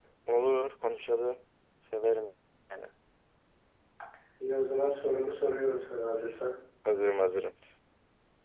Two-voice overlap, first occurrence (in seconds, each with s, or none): none